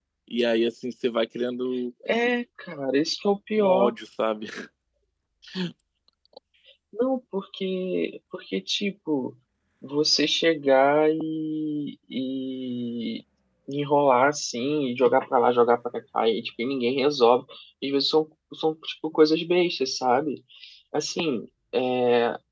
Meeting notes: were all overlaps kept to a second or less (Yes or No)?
Yes